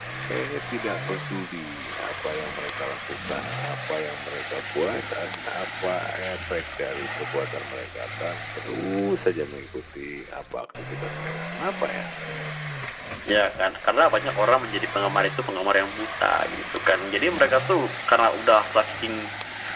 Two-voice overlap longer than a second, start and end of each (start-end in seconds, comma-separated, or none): none